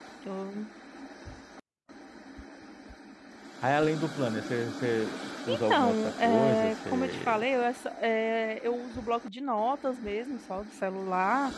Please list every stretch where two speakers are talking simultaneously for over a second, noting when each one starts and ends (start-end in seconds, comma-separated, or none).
5.5-7.4